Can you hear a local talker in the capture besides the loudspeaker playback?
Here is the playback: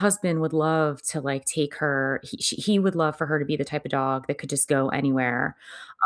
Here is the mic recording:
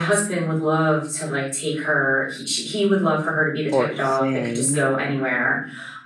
Yes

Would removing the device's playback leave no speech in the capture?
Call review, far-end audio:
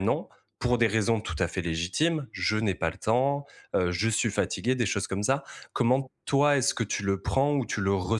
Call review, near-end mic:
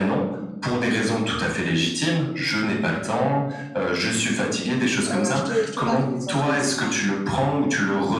No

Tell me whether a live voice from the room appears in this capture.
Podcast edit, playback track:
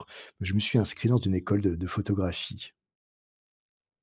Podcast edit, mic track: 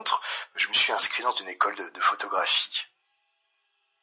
No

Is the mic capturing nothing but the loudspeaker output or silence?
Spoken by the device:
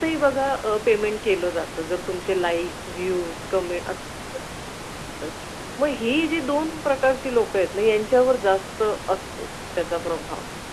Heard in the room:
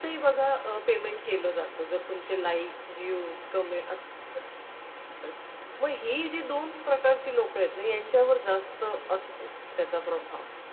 Yes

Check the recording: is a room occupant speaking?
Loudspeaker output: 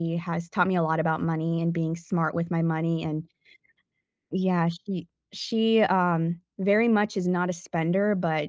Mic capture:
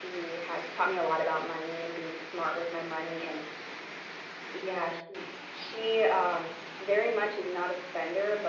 No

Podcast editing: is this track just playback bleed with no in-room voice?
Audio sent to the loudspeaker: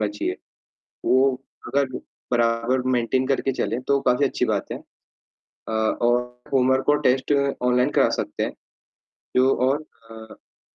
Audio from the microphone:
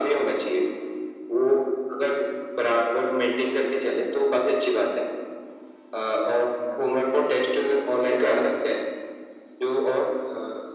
Yes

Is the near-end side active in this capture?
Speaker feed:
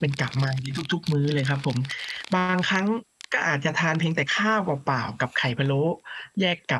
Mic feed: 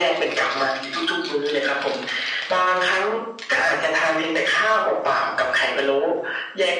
No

